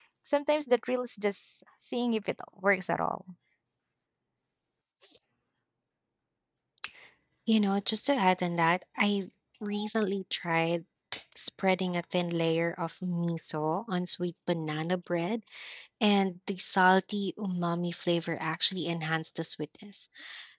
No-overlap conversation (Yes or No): Yes